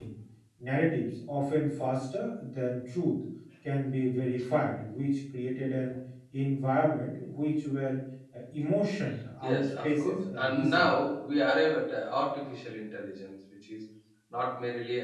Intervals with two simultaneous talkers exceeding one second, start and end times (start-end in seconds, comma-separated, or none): 9.4-10.9